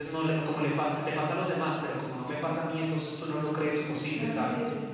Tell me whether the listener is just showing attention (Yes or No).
No